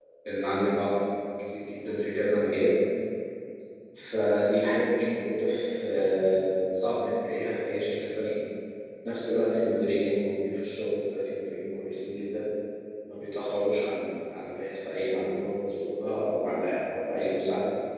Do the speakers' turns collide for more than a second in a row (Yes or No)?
No